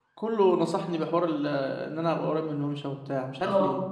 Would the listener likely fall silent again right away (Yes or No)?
No